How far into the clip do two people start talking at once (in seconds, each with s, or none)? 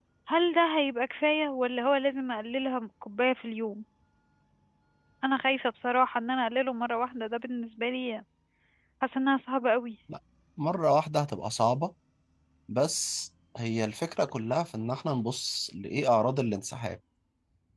none